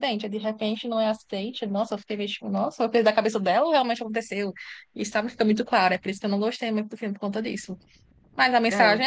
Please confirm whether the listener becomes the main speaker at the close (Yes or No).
No